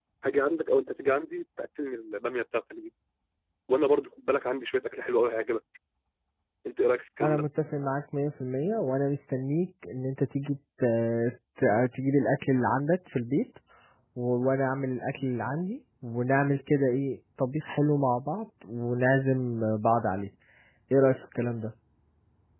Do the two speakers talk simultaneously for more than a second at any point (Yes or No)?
No